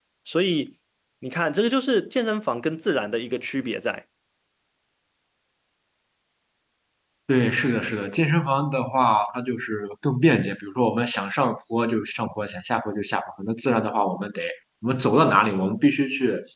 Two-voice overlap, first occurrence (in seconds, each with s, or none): none